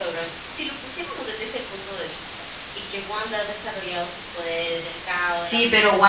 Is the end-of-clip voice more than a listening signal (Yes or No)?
Yes